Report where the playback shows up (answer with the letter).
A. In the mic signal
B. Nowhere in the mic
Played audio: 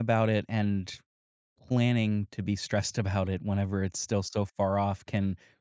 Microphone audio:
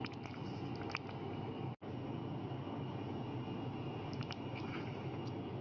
B